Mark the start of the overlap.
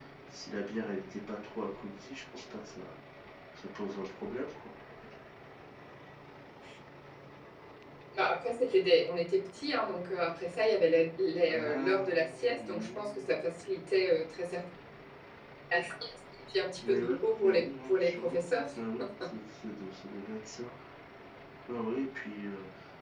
11.5 s

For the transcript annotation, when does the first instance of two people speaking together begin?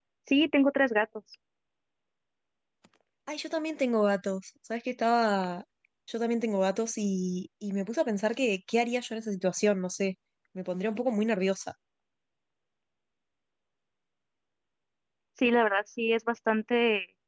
none

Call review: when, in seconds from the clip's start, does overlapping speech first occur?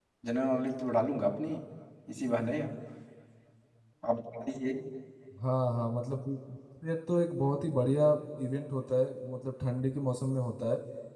none

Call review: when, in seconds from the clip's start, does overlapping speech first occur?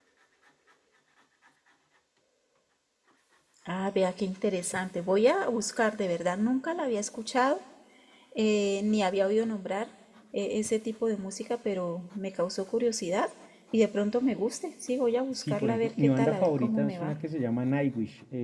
15.3 s

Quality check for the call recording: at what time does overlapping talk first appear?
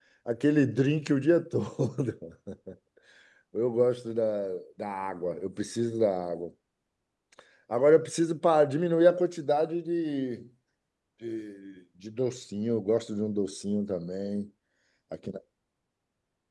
none

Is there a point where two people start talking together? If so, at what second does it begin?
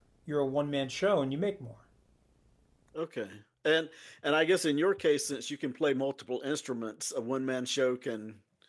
none

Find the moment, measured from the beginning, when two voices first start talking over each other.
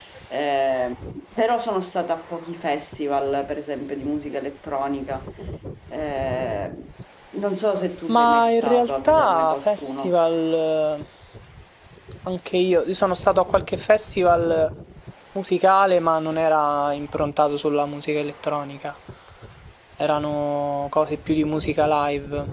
8.1 s

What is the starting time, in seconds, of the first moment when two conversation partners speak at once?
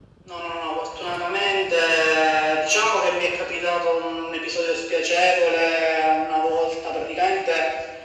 none

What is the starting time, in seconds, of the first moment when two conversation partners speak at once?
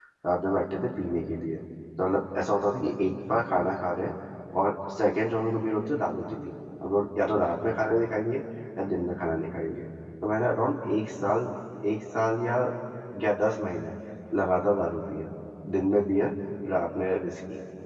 none

